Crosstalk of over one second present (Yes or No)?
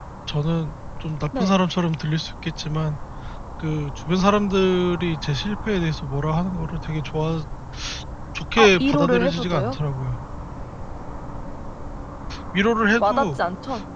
Yes